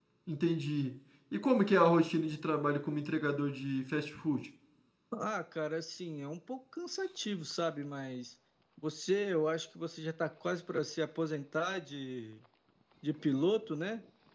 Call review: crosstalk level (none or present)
none